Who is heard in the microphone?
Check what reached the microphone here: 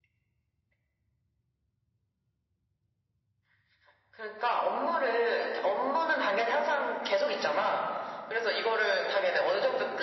echo only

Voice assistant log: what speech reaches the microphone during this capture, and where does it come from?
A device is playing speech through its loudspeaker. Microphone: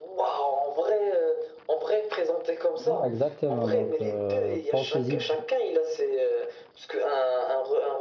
both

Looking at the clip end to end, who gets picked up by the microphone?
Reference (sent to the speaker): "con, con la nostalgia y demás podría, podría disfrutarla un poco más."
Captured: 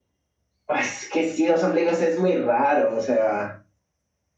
user only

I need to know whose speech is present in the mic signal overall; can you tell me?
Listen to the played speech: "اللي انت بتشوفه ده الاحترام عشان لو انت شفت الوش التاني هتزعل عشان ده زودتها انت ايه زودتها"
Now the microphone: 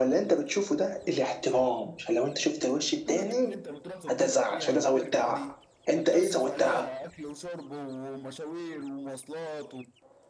both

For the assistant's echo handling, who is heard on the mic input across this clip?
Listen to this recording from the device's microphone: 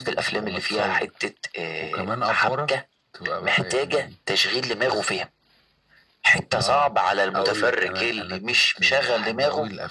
echo only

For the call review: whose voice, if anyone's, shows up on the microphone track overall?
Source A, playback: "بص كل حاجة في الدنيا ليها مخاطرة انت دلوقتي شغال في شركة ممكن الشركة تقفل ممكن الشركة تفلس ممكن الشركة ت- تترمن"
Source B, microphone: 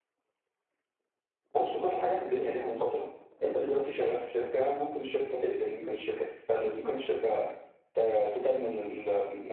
echo only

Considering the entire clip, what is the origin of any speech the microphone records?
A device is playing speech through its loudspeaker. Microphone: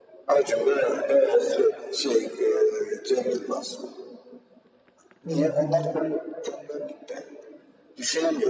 both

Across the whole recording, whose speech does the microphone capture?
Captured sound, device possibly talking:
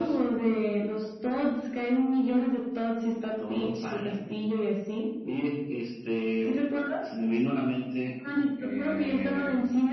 echo only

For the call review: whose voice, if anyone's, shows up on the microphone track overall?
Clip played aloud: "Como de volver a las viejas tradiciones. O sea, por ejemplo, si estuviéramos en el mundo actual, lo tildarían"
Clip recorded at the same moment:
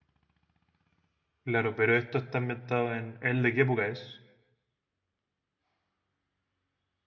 user only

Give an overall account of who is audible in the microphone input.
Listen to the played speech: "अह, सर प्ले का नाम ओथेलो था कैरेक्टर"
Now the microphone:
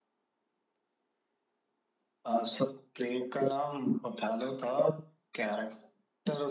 echo only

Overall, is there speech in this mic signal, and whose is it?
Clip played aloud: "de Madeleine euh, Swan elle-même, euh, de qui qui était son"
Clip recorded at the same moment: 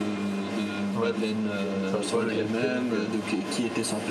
both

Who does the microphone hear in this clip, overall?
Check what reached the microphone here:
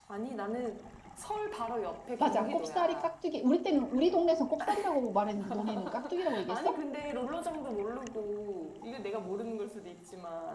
both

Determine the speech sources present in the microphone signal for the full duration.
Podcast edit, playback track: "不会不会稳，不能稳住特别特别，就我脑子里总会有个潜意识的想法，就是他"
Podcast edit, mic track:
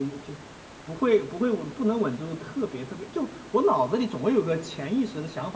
echo only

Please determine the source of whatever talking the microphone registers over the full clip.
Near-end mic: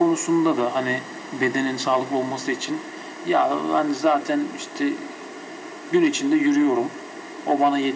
echo only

